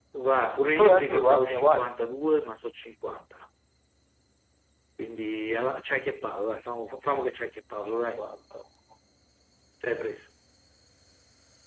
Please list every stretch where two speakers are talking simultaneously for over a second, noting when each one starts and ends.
0.7-2.0

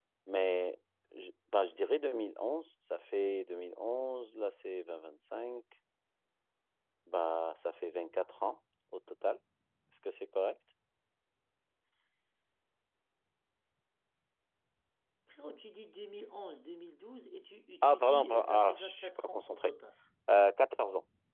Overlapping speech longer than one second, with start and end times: 17.8-19.6

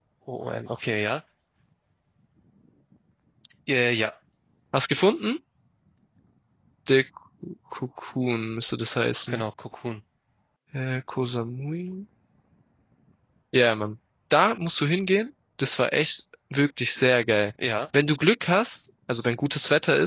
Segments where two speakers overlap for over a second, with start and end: none

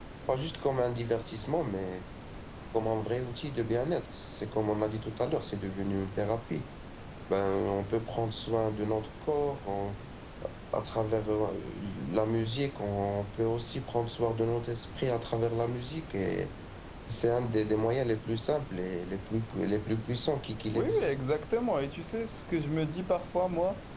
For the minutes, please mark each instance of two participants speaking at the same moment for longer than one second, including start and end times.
none

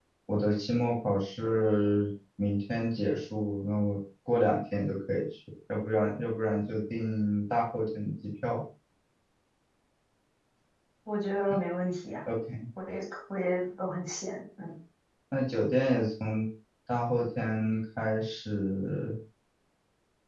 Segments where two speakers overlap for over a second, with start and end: none

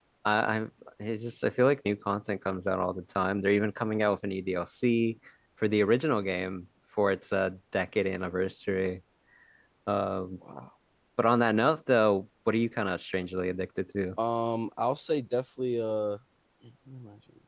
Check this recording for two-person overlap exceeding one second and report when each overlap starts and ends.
none

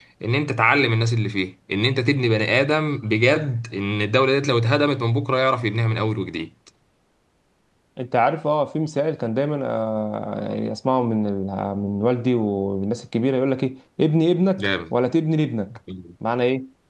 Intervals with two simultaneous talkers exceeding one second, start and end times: none

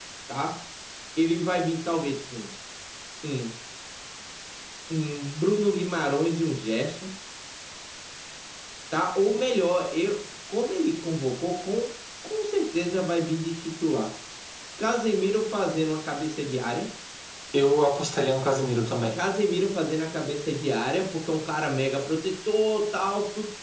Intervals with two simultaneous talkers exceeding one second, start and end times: none

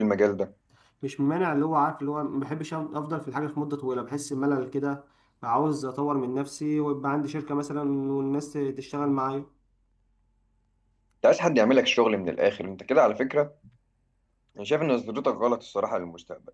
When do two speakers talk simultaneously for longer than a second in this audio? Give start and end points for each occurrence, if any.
none

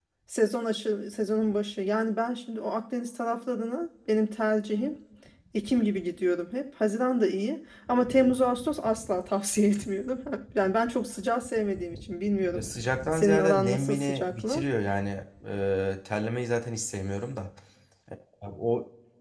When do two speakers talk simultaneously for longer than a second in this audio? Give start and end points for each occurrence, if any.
13.1-14.6

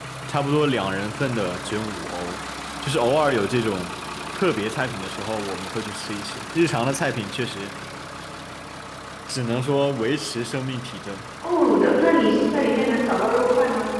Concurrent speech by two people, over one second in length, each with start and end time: none

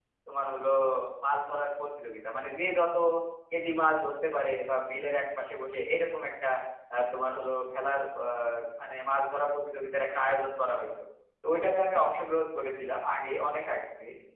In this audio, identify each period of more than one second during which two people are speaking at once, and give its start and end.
none

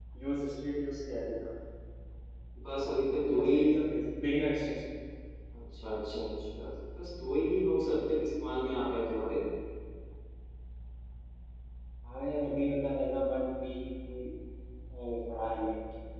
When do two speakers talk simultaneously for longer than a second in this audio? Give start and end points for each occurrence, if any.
none

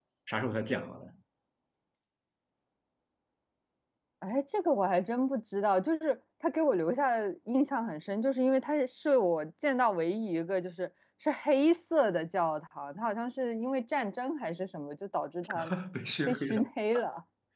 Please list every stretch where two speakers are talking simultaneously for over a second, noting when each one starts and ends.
none

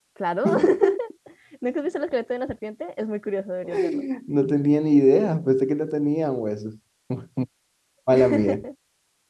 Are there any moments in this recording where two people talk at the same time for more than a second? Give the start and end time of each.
none

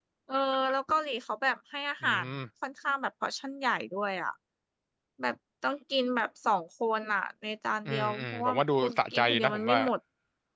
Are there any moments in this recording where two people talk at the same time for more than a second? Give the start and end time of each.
7.8-9.8

